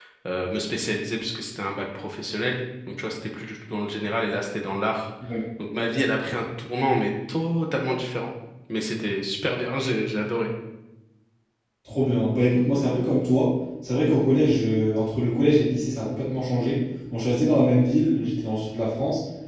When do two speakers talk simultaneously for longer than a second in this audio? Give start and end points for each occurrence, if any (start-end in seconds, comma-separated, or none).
none